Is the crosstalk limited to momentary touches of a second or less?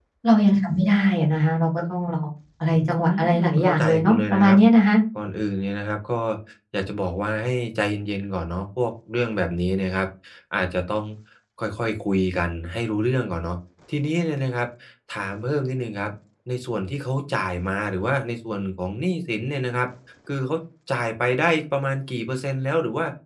No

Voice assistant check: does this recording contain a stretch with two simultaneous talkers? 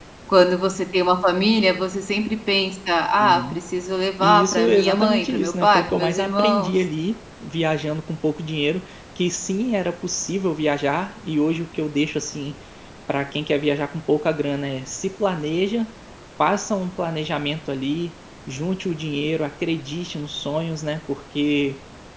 Yes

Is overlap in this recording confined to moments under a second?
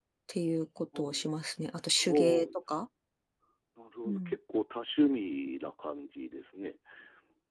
Yes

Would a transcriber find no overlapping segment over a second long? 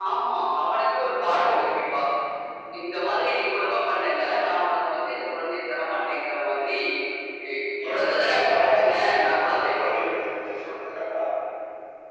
No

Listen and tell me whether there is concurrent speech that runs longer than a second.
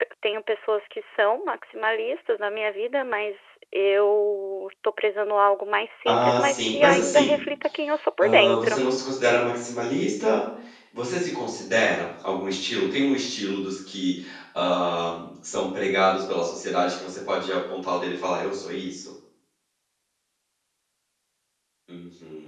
Yes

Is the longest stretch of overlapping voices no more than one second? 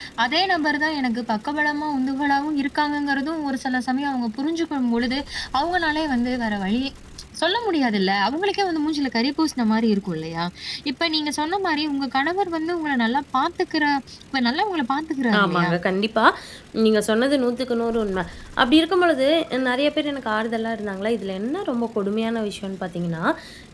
Yes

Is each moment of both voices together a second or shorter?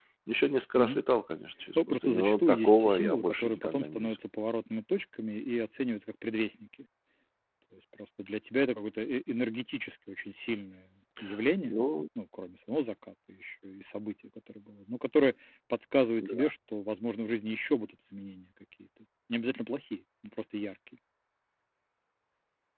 No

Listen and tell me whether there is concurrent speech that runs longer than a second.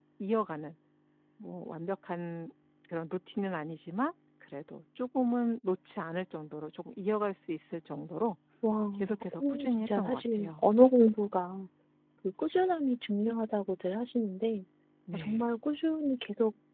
Yes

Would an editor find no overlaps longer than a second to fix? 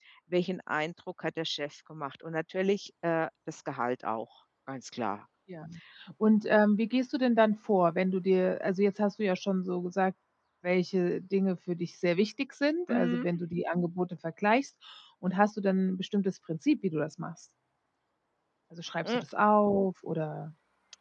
Yes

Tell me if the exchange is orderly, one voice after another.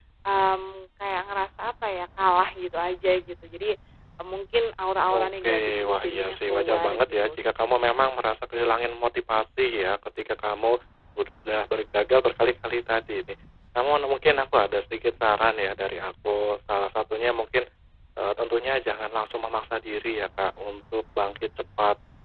No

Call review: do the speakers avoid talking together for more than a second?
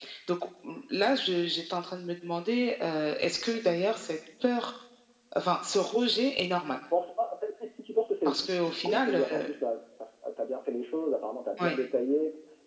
No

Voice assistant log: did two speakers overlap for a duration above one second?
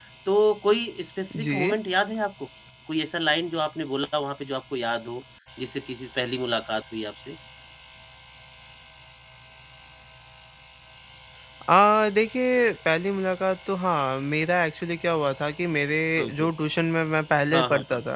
No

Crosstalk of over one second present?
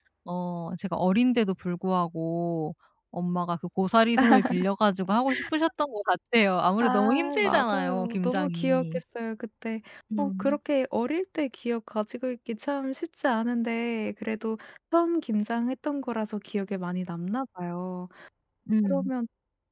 Yes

